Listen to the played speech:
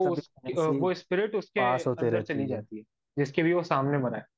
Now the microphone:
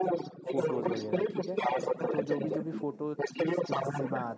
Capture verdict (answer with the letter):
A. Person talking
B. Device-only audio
A